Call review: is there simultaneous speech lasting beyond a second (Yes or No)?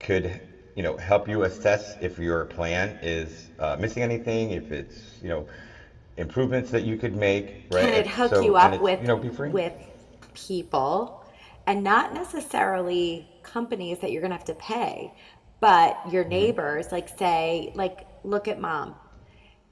Yes